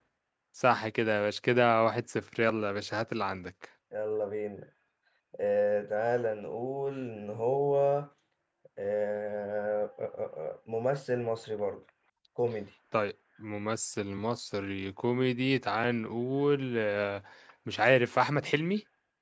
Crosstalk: none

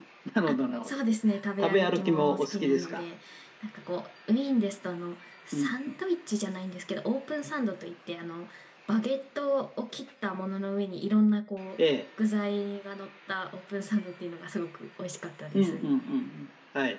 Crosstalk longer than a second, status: present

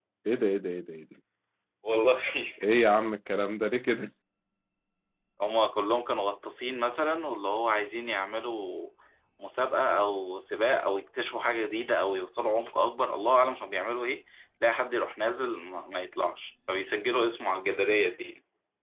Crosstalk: none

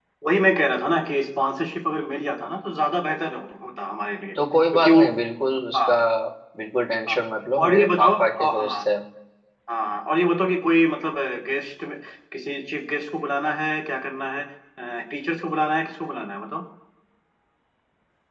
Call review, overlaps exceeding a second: present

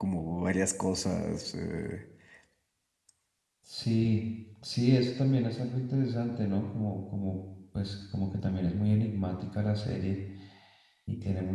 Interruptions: none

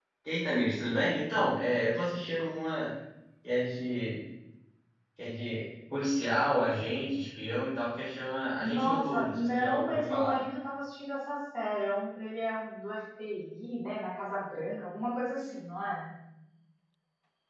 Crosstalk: present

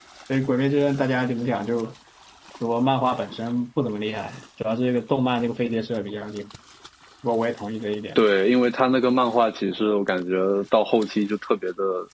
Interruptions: none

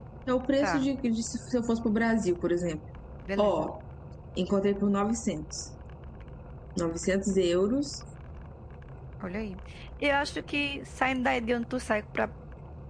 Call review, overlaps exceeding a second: none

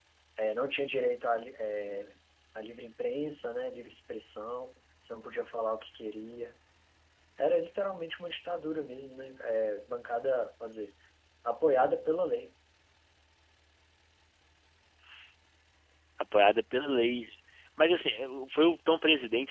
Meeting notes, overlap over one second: none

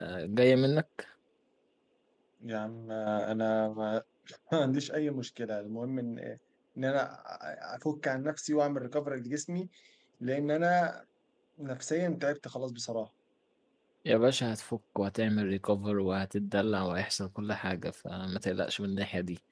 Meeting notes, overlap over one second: none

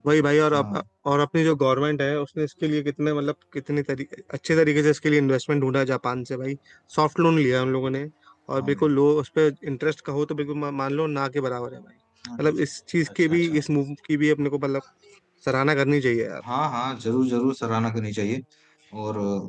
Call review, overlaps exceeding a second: none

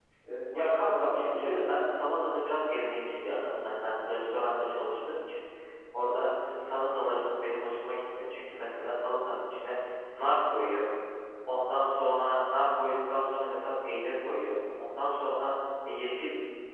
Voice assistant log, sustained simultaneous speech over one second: present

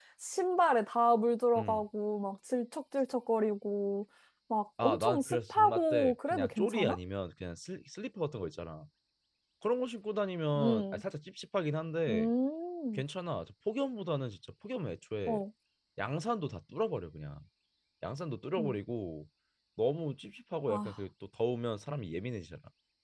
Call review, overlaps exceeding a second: present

